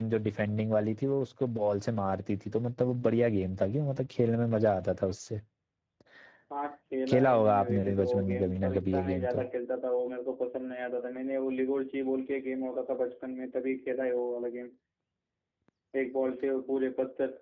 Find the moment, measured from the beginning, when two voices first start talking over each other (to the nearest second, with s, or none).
7 s